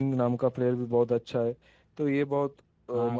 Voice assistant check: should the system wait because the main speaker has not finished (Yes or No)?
Yes